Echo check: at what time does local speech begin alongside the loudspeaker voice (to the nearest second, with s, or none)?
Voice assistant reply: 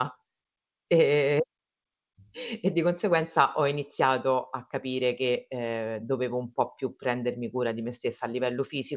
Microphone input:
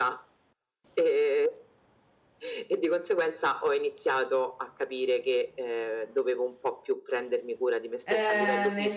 8 s